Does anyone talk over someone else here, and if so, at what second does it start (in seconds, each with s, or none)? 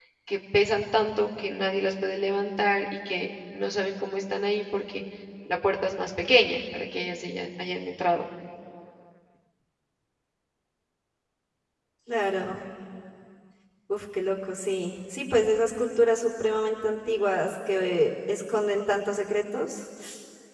none